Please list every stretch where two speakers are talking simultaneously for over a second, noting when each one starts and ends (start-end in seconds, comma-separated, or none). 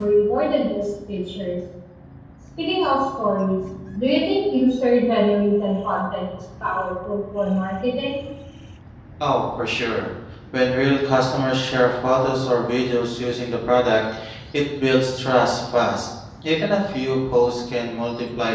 none